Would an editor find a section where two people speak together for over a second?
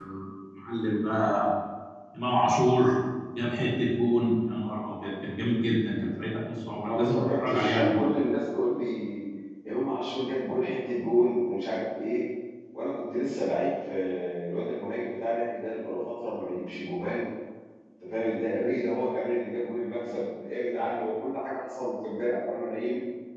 Yes, from 6.8 s

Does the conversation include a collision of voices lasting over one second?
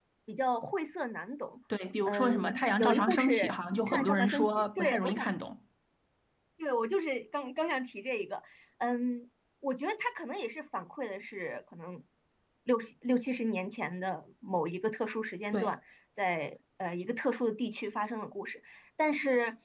Yes, from 2.1 s

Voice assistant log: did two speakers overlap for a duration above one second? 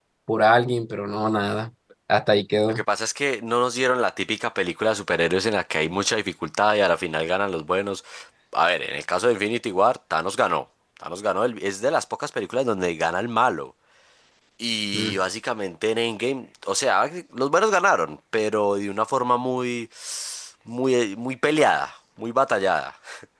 No

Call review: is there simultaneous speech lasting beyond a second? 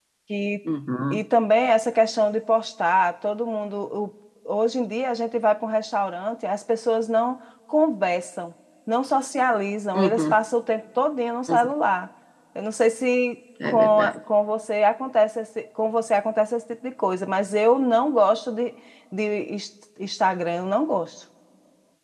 No

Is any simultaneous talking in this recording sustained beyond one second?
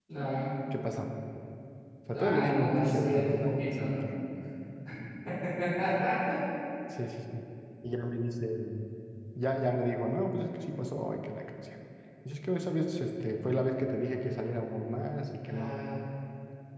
Yes, from 2.1 s

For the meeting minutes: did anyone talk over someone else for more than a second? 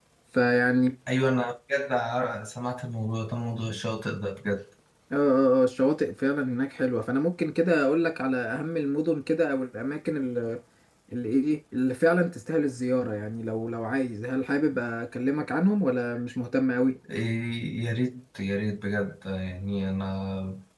No

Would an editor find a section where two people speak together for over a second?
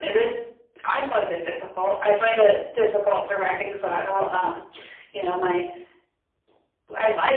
No

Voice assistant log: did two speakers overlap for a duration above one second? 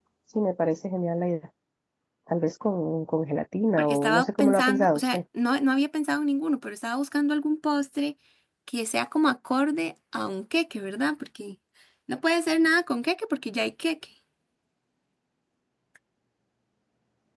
Yes, from 3.8 s

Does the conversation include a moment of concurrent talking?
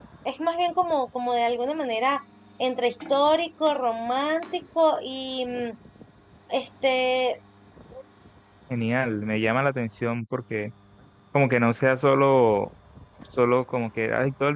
No

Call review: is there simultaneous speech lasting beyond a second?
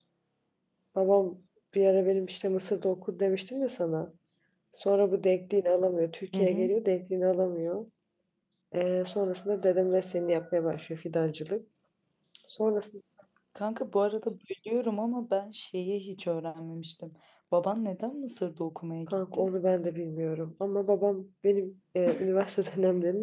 No

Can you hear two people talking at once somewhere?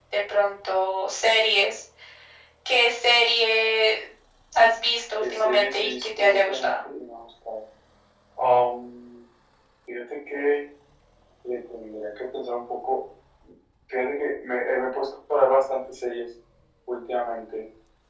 Yes, from 5.2 s

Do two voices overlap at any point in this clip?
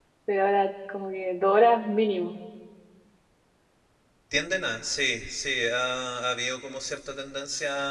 No

